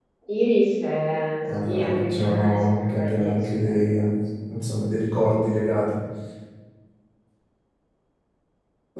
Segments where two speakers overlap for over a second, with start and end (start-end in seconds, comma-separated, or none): 1.4-4.0